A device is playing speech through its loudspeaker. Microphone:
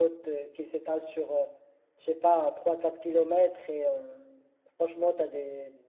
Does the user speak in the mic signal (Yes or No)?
Yes